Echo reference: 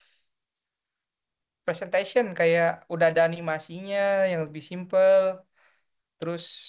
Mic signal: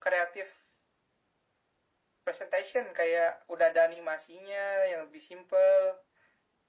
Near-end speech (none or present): none